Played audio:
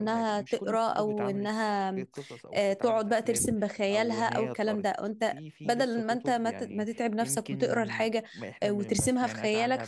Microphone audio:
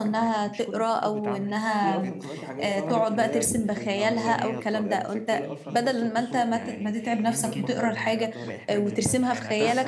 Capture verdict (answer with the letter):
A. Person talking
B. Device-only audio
A